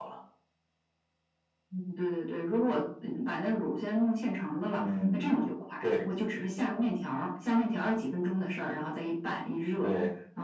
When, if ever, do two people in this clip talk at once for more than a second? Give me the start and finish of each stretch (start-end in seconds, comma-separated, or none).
none